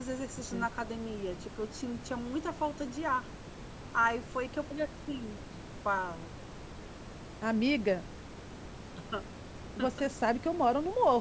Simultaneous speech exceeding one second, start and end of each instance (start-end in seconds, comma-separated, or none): none